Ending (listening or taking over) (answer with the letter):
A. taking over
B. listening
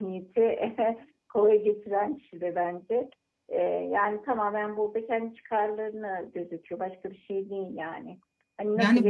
B